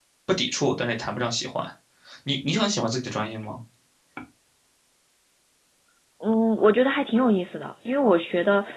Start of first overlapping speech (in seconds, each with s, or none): none